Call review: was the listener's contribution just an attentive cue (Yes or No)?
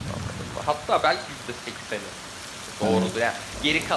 Yes